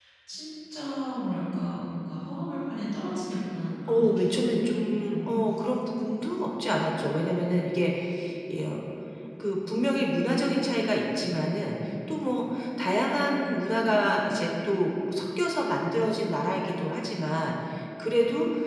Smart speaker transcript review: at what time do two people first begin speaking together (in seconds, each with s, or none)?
3.9 s